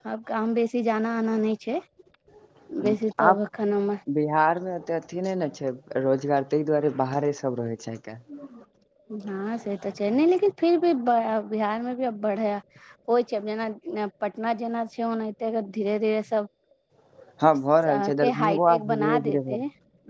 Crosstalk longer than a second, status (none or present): present